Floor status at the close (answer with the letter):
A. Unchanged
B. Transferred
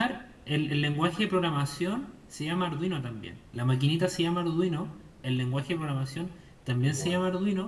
A